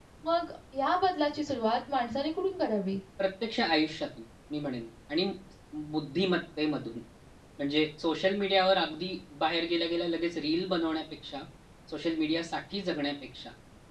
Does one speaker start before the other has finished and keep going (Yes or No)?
No